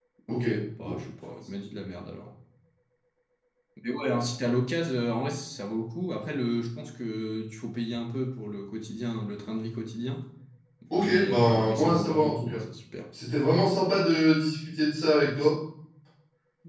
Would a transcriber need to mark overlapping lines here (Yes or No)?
Yes